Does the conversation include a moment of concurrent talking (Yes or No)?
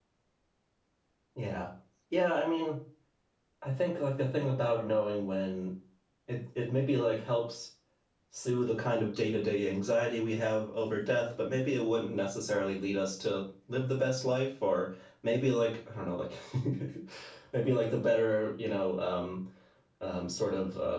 No